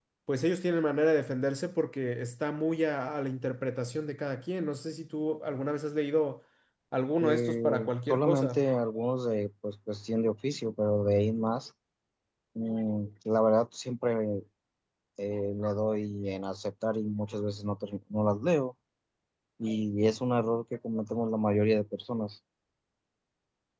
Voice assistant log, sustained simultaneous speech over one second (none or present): present